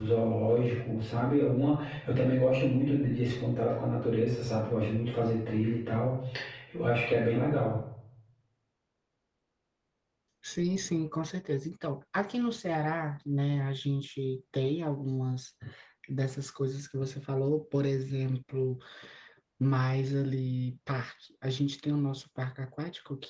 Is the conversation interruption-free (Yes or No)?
Yes